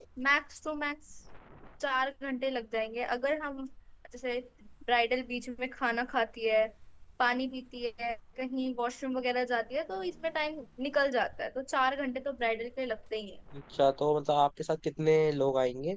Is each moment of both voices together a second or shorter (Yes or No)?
Yes